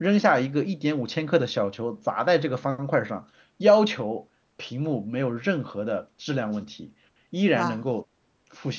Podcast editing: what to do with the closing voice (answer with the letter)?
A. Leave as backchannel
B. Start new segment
A